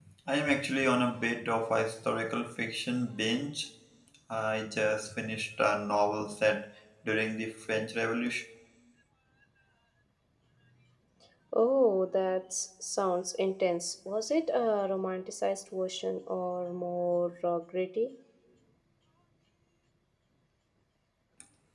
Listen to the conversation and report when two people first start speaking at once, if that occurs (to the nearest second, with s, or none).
none